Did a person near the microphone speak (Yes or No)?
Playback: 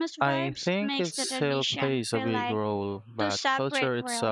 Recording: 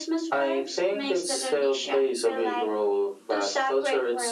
No